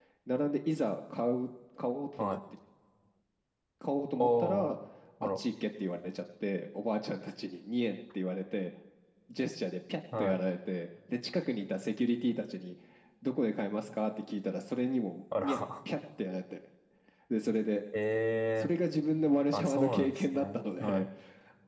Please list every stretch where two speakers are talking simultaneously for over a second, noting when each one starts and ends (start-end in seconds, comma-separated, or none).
19.5-21.1